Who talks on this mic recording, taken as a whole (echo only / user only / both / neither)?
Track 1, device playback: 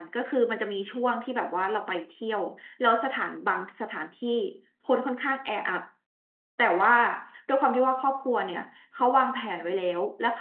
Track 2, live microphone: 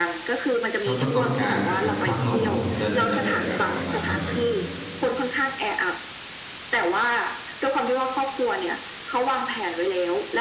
both